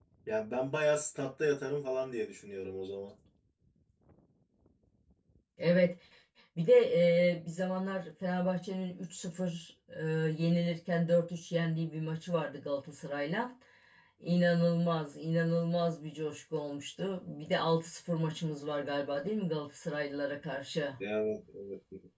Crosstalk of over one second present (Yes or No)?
No